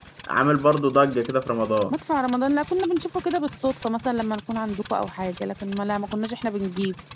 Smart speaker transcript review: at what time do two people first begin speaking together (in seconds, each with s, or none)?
none